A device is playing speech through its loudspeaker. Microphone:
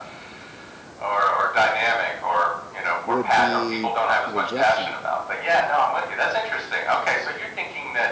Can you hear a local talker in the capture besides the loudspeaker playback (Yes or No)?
Yes